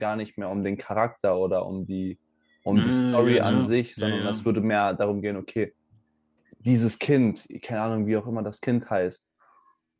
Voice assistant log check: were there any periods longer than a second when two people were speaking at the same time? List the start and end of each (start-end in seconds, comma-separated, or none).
2.7-4.5